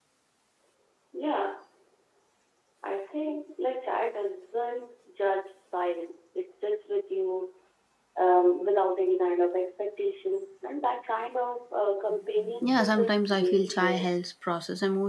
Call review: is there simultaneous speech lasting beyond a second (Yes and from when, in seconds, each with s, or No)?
Yes, from 12.4 s